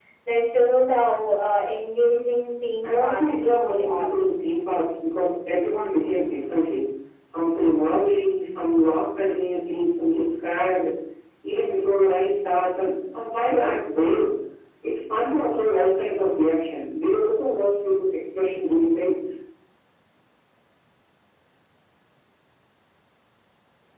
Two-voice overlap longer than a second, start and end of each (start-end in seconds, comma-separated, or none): 2.8-4.1